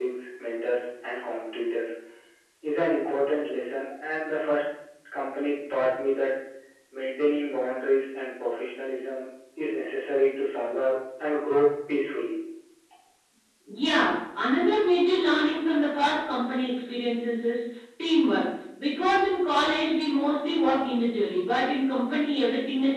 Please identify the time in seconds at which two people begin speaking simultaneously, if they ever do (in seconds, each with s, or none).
none